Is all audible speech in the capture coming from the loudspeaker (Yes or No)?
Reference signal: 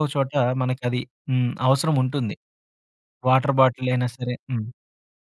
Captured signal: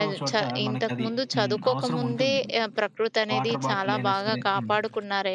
No